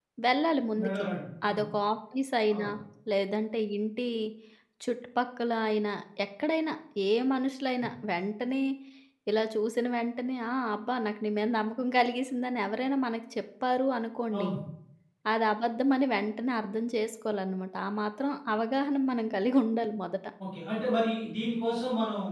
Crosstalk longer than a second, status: none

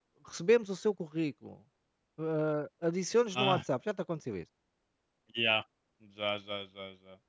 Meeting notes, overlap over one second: none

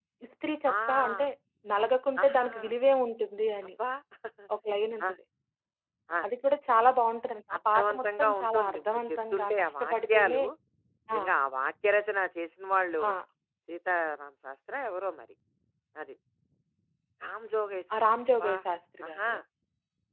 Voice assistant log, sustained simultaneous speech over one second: present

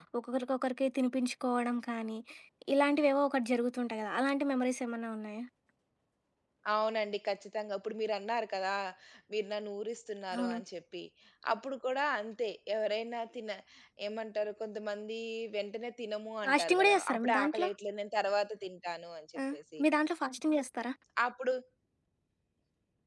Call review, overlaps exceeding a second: present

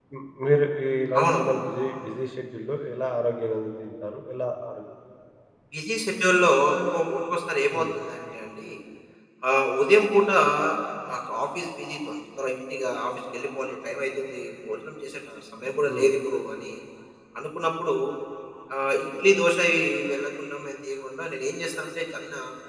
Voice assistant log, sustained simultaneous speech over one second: none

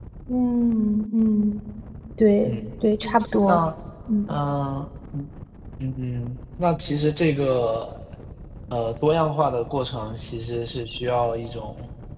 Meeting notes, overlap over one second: none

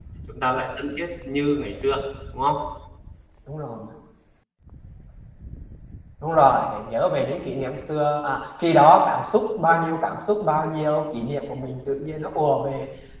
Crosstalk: none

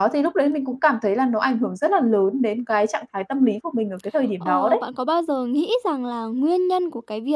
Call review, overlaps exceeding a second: none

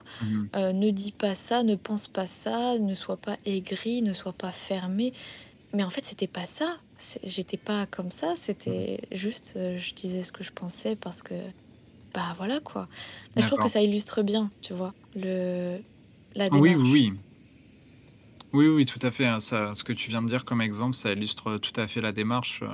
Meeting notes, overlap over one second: none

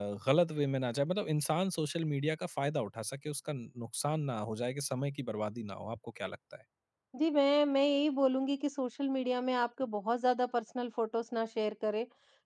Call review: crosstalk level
none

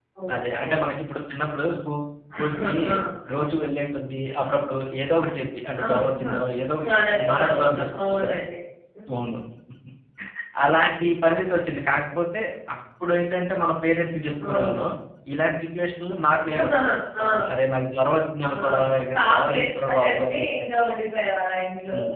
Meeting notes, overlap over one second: present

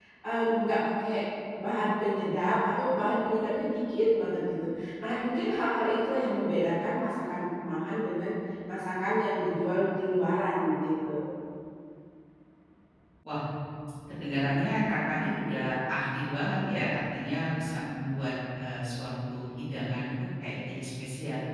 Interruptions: none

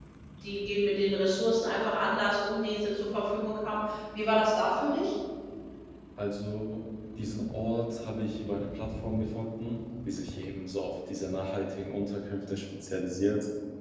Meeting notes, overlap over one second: none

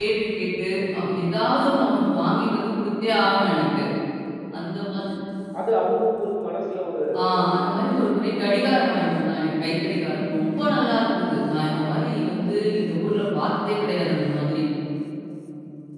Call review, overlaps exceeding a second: none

